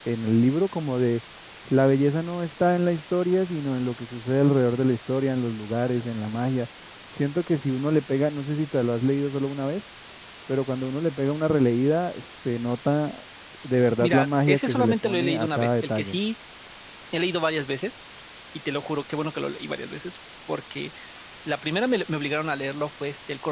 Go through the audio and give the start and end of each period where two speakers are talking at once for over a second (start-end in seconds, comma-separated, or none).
14.0-16.2